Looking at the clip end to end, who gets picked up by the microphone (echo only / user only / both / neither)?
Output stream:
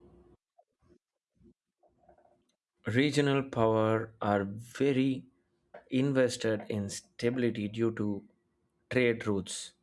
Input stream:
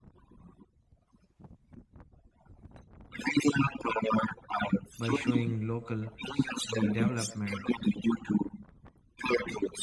both